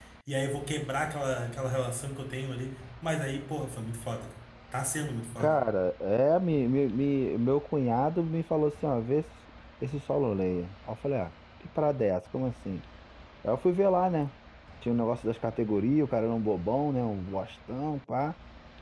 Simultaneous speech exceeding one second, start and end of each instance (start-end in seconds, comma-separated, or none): none